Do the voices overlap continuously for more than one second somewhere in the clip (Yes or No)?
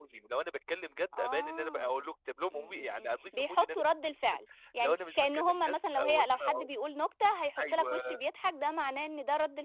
Yes